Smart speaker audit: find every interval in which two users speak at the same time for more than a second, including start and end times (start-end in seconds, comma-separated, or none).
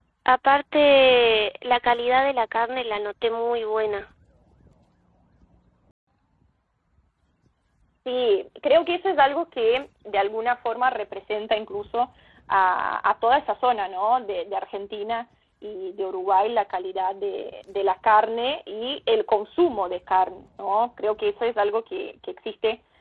none